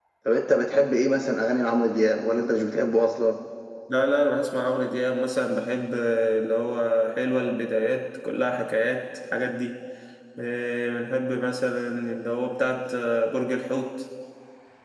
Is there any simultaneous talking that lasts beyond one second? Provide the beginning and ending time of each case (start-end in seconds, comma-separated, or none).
none